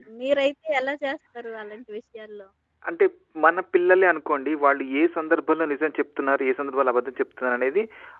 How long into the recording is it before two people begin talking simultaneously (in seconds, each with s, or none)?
none